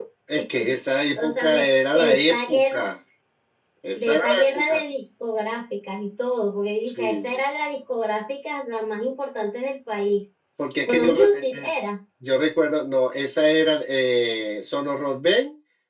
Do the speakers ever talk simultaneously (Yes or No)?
Yes